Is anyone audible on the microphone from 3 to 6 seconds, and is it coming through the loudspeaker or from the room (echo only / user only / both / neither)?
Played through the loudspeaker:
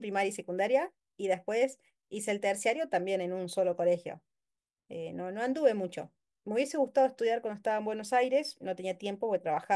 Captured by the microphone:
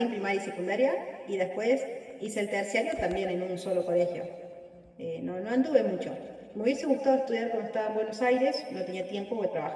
echo only